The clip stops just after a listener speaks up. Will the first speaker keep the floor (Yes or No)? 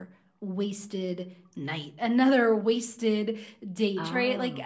Yes